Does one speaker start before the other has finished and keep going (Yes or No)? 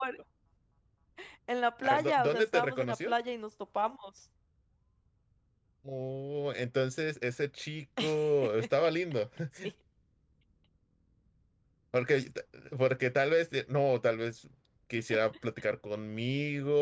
Yes